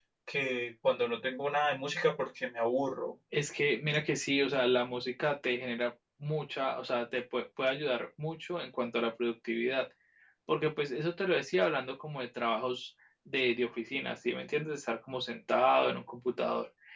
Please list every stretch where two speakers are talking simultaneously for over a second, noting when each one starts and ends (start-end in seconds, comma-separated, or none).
none